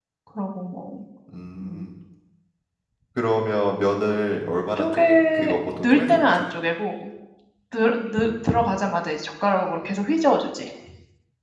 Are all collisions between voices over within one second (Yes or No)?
No